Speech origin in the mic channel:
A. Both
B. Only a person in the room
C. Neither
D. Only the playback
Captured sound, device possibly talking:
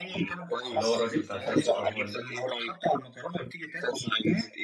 A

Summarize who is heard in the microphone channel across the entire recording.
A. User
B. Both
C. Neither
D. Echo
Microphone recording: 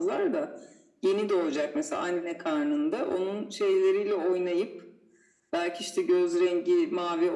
D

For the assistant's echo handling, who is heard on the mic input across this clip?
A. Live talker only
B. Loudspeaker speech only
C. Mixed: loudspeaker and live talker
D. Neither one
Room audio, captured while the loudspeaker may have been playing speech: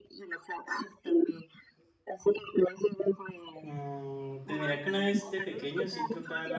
C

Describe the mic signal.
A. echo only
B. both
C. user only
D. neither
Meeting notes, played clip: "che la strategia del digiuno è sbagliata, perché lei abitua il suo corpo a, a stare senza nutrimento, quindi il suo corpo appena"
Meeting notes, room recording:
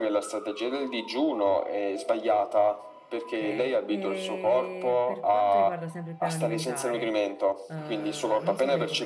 B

